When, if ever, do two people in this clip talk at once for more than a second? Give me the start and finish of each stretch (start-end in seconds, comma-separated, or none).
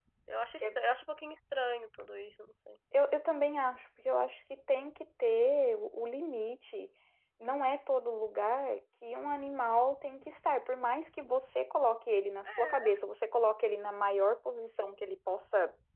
none